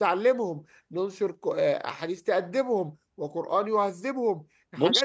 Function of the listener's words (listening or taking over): taking over